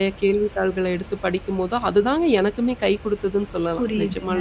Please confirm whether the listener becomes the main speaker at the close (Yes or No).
Yes